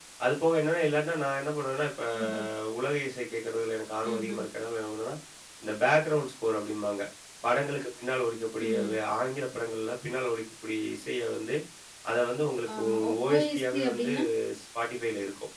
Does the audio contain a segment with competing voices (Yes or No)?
Yes